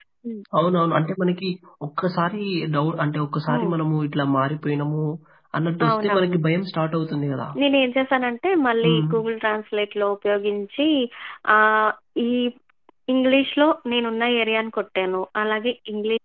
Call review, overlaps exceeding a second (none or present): none